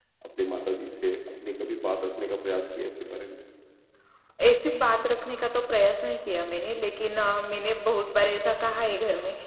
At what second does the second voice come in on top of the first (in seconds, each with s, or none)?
none